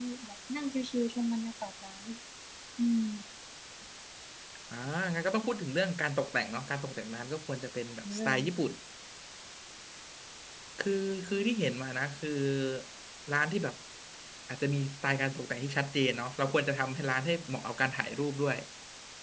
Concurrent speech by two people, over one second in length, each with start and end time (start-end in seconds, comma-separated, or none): none